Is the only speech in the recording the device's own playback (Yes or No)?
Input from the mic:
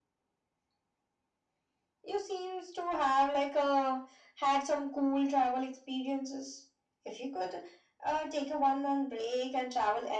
Yes